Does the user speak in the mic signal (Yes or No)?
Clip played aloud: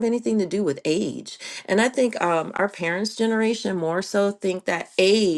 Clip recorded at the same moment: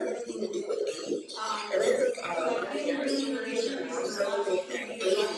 Yes